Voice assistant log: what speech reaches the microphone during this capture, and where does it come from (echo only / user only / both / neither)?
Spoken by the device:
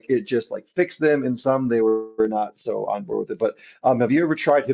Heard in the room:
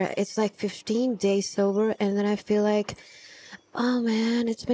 user only